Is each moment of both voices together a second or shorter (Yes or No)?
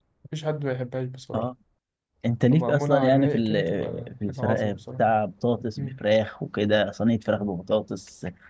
No